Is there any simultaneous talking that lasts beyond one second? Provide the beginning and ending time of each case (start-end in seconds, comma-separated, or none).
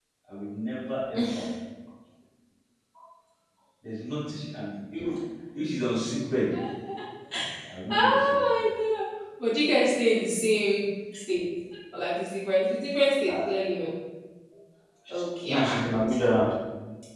none